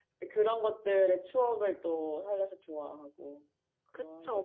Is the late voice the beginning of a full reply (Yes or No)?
Yes